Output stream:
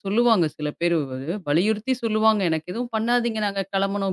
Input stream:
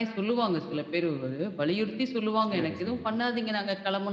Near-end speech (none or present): present